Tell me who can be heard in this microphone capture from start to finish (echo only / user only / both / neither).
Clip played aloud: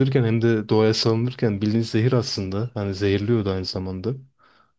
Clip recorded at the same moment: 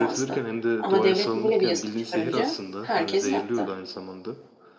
both